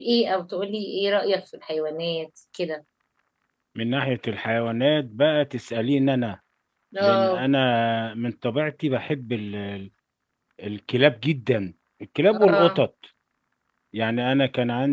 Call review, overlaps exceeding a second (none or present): none